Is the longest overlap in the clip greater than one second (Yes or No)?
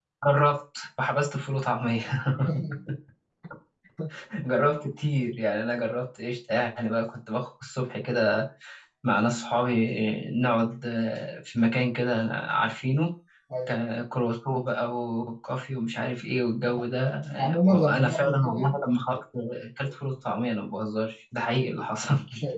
Yes